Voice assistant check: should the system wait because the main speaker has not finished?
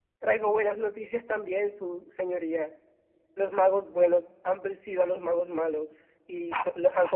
Yes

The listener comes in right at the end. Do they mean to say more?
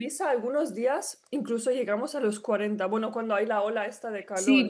Yes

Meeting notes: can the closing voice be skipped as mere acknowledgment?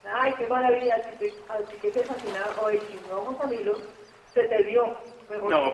No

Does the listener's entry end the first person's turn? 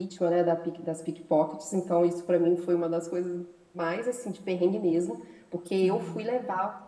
No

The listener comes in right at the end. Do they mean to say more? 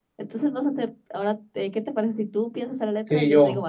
Yes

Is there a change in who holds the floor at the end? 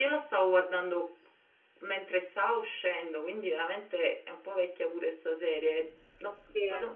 No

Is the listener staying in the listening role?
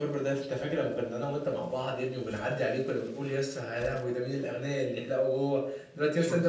Yes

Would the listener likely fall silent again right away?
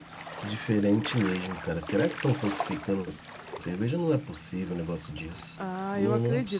No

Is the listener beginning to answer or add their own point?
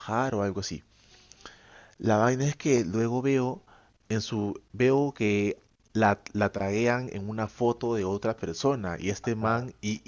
No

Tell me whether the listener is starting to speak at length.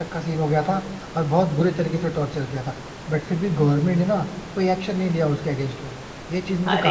Yes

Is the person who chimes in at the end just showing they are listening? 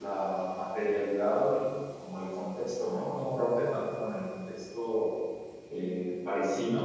Yes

